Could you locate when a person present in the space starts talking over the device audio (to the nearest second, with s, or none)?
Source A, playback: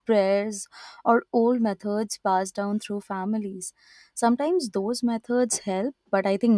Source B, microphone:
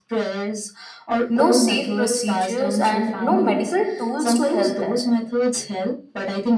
1 s